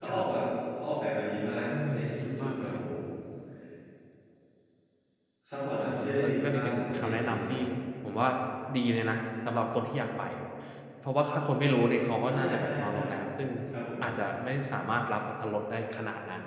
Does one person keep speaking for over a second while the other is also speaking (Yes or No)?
Yes